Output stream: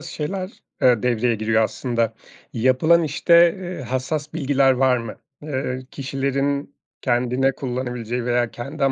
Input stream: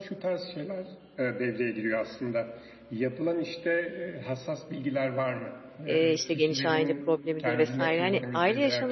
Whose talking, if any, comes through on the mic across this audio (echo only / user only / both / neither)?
both